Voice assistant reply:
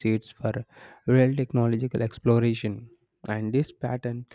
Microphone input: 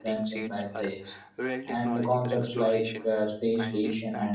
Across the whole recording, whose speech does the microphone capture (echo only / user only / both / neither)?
both